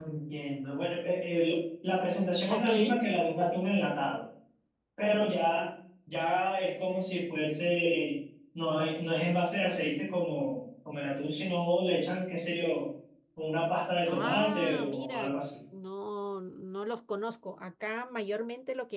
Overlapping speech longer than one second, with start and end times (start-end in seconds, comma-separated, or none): 14.1-15.3